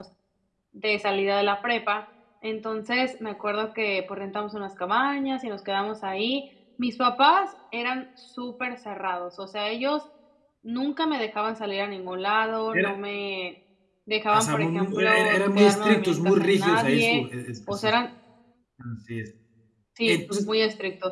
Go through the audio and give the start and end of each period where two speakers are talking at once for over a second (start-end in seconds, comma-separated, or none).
14.3-17.2